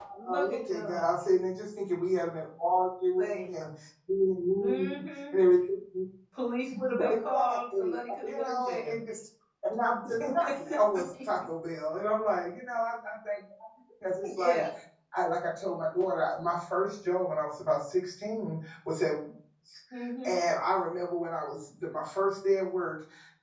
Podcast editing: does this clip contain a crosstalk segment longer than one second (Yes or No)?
Yes